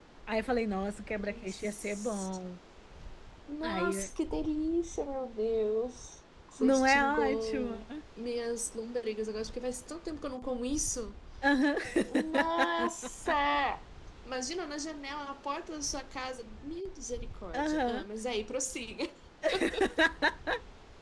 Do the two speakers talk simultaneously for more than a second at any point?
Yes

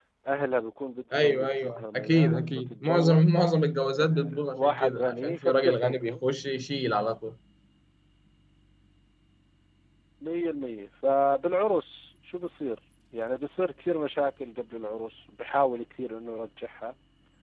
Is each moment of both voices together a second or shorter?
No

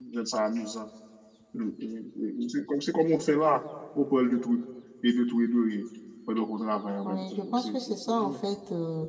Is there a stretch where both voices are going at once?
Yes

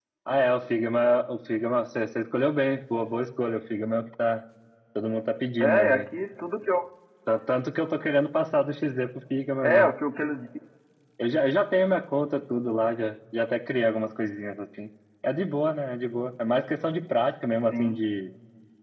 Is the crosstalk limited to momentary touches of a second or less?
Yes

